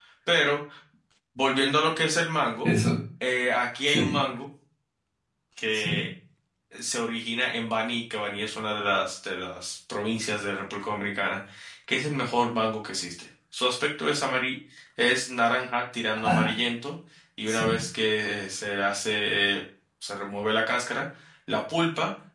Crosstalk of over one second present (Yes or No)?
No